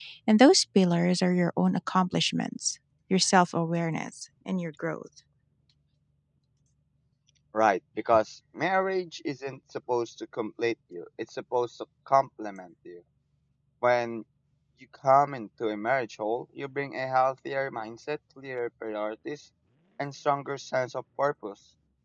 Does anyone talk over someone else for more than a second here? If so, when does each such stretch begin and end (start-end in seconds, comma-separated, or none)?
none